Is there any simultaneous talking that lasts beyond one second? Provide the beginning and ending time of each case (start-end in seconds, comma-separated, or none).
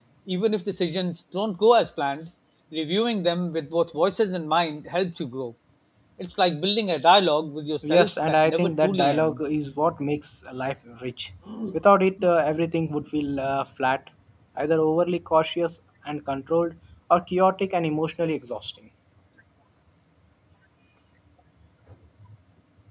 7.8-9.4